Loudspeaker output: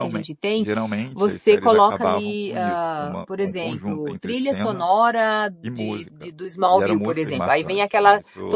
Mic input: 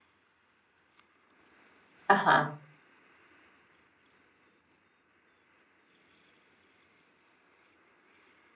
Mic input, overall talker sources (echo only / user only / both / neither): user only